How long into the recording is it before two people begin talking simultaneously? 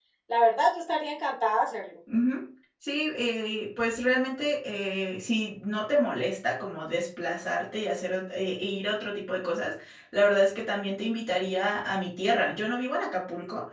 none

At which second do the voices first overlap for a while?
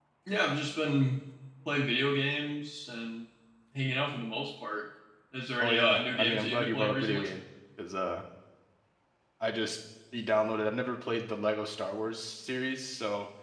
6 s

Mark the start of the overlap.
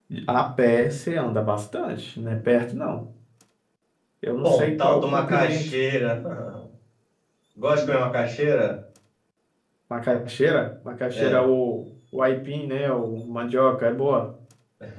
4 s

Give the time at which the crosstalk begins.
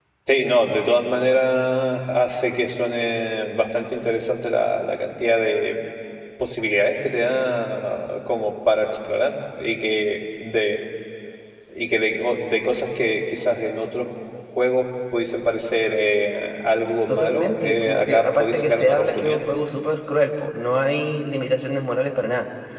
17 s

